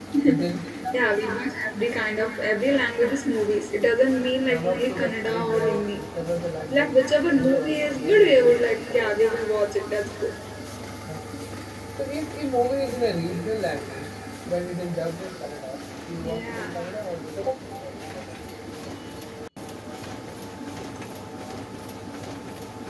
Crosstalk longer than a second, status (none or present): present